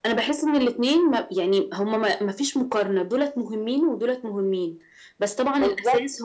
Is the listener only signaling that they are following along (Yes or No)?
Yes